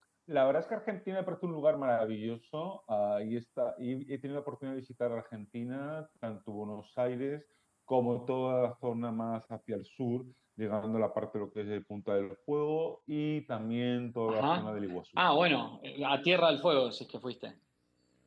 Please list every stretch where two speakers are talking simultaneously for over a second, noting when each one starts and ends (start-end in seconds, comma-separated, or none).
none